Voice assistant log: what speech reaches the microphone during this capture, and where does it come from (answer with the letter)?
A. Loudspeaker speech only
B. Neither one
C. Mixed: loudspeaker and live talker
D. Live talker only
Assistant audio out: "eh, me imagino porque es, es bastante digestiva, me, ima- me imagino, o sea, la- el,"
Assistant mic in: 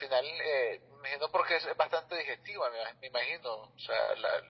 A